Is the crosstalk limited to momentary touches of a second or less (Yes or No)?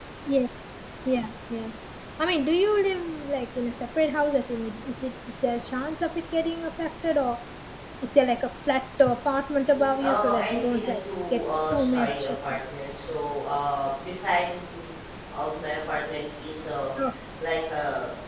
No